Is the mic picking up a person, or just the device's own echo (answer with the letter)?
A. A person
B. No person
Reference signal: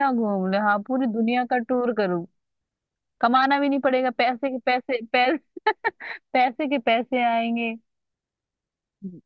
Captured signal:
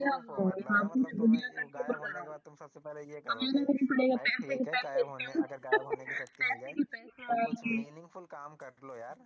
A